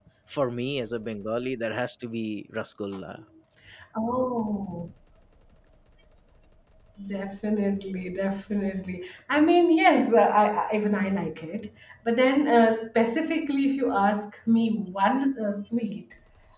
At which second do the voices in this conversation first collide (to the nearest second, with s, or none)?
none